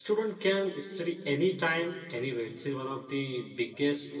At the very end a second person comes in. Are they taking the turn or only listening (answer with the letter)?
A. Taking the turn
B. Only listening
B